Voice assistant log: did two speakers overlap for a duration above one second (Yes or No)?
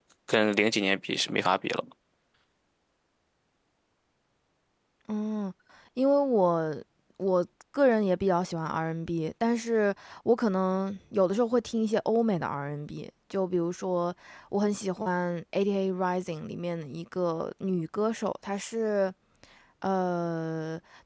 No